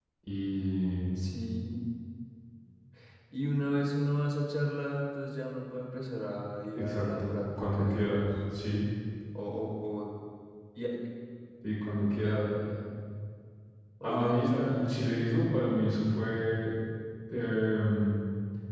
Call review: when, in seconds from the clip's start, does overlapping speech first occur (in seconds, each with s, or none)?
6.7 s